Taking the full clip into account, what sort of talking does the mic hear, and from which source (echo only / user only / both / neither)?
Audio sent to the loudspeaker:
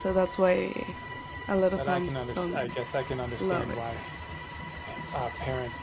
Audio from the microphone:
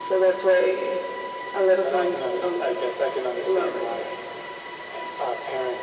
echo only